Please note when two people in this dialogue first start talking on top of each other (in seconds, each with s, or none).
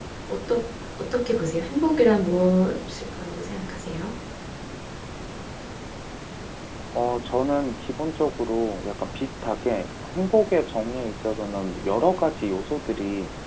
none